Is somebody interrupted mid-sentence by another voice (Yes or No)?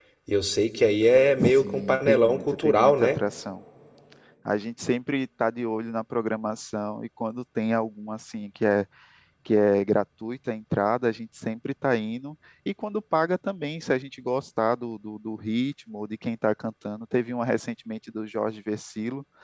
Yes